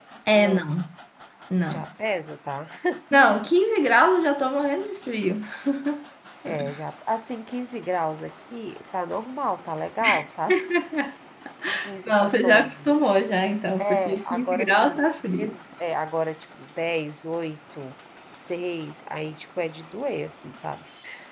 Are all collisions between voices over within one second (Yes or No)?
No